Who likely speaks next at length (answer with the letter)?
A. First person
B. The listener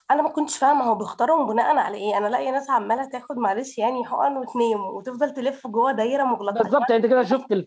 B